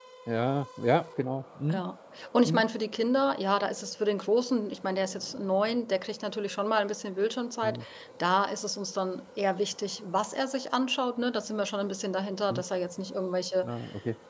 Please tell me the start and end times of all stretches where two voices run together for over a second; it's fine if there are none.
none

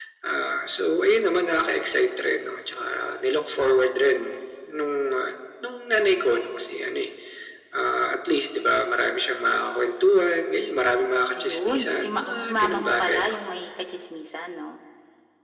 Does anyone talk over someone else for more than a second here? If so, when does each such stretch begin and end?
11.4-13.4

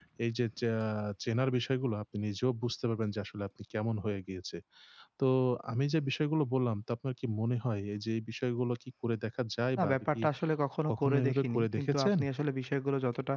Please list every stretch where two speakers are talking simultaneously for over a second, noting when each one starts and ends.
10.9-12.1

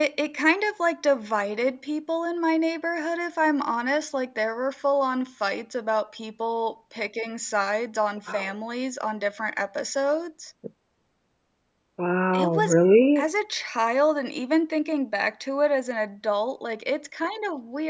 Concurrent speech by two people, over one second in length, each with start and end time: none

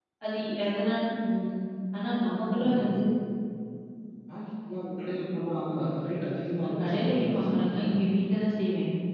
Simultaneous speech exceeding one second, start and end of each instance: 6.6-7.9

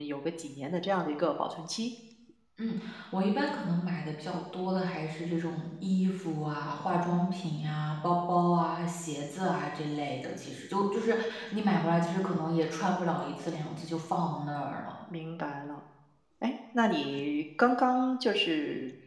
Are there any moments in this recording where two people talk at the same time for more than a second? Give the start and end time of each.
none

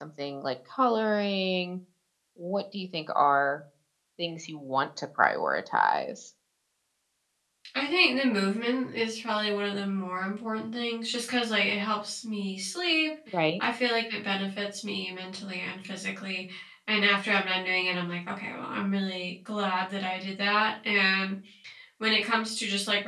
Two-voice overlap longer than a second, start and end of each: none

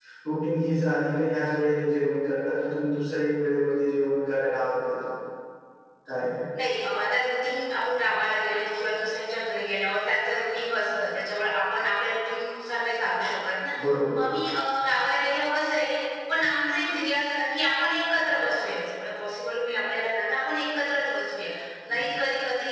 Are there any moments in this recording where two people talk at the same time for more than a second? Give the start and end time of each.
none

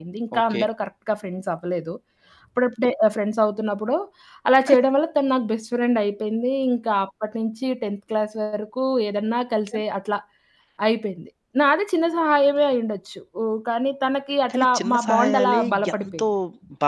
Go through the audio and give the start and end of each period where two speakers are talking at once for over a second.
14.5-16.2

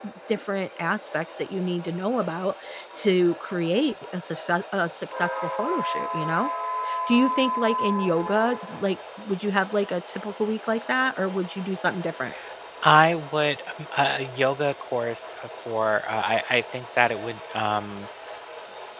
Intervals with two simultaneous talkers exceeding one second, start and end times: none

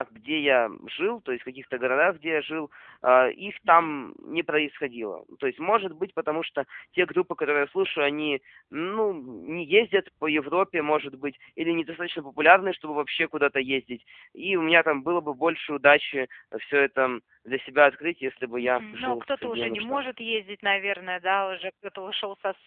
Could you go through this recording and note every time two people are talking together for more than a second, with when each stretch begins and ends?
18.6-20.0

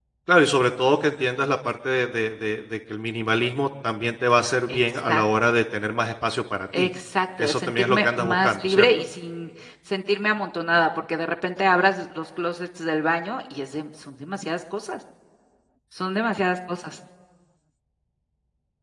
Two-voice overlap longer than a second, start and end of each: 7.4-8.9

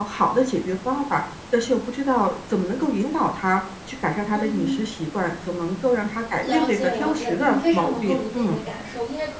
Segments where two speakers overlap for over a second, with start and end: 6.4-8.6

